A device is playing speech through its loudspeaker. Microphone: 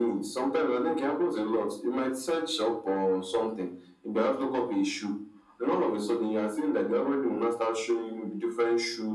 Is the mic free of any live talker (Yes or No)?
Yes